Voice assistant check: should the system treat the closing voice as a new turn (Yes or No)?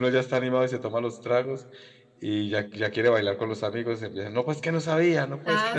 Yes